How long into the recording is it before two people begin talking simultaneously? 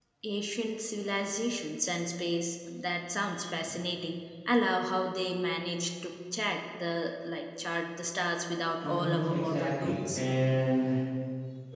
8.8 s

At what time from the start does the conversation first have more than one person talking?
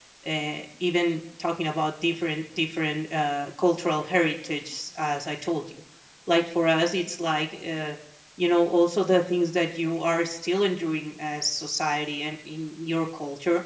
none

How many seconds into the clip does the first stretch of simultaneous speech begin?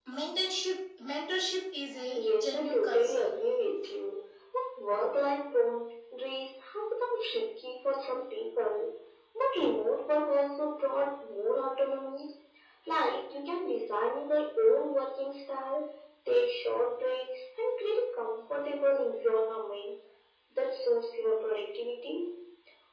2.2 s

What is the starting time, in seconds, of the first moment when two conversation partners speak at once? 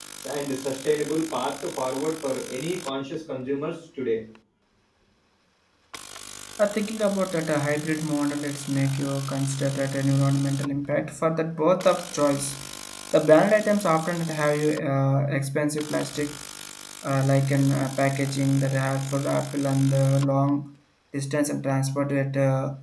none

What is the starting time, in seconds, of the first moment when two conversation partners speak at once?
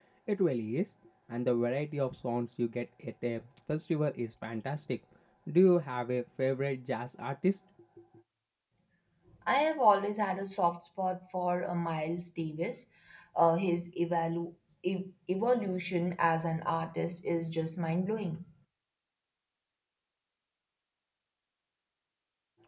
none

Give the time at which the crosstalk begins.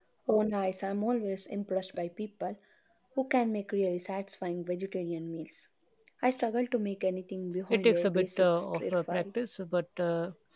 7.7 s

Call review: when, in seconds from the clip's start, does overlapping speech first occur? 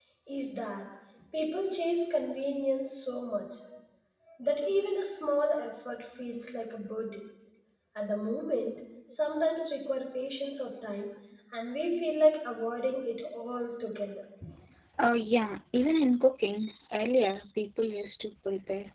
none

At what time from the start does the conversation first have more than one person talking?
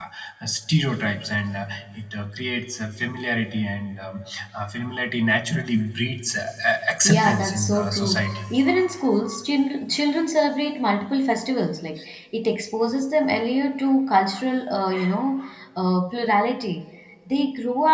7.0 s

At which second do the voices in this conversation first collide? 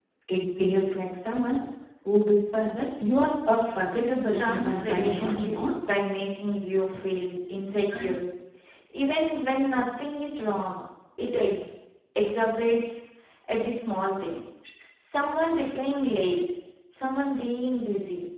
4.1 s

